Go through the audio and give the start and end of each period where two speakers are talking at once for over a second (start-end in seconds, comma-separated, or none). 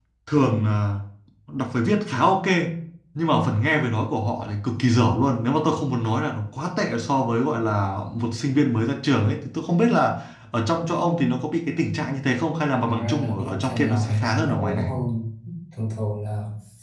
12.8-14.9